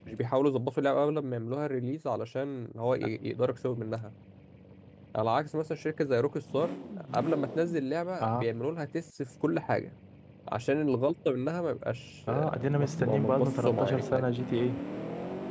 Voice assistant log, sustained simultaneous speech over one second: present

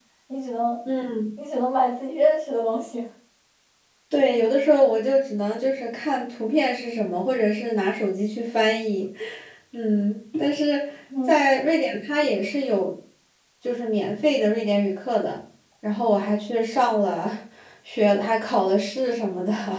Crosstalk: none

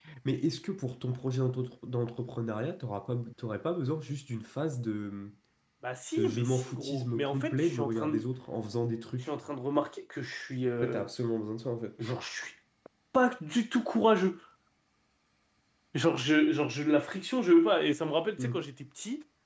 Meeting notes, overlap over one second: present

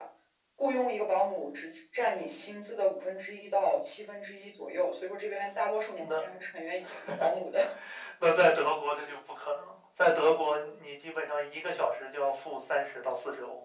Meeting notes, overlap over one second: none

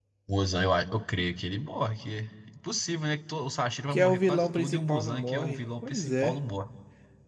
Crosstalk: present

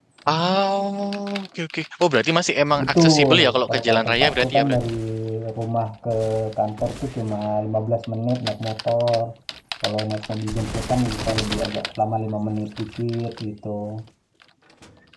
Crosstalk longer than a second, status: present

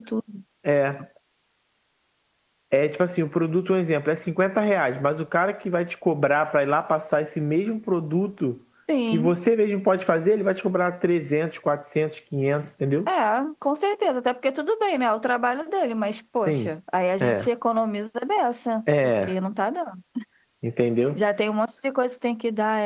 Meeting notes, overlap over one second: none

